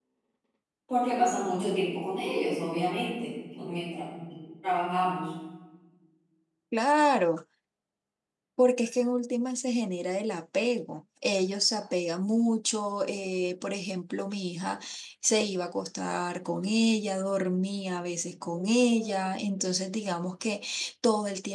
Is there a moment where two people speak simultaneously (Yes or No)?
No